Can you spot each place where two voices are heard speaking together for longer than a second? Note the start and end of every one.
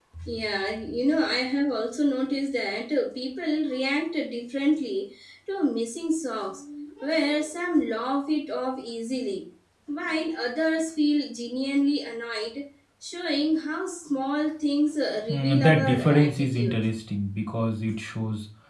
15.3-16.8

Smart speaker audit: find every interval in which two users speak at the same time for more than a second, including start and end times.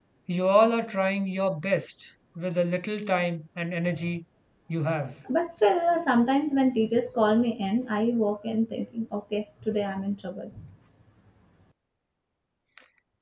none

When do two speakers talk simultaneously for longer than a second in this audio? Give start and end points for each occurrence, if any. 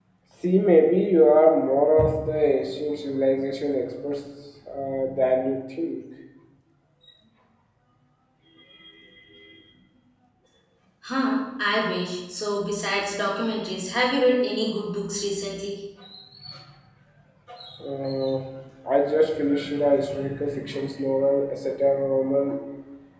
none

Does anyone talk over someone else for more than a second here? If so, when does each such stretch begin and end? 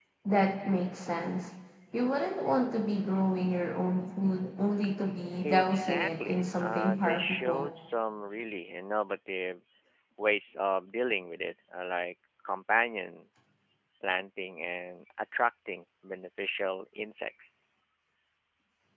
5.4-7.7

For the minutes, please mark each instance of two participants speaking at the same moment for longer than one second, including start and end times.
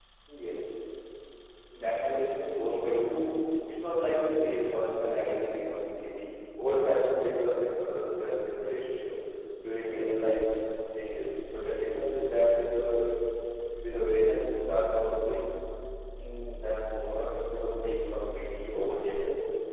none

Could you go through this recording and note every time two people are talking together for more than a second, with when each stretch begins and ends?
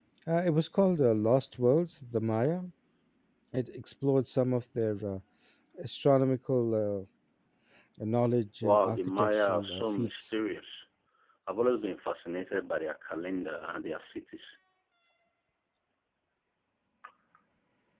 8.6-10.3

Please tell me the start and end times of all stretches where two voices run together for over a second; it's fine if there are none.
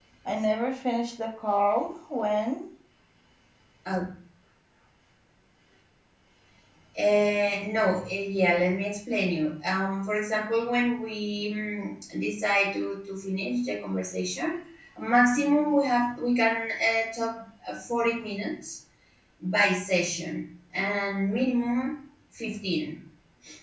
none

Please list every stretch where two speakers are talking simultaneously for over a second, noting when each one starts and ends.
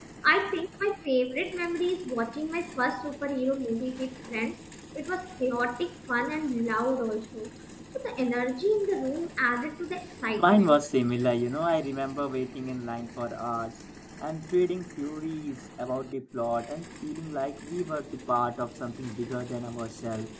none

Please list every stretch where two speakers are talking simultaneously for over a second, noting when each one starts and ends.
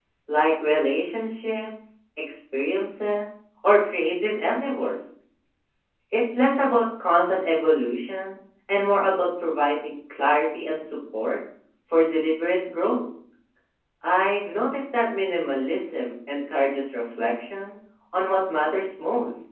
none

